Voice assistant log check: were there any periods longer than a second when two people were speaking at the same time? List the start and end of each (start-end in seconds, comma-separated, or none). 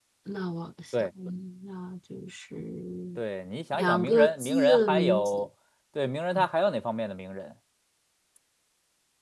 3.7-5.3